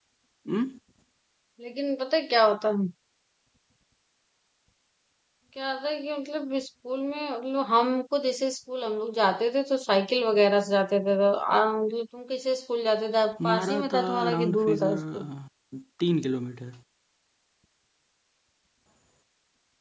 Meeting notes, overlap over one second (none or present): present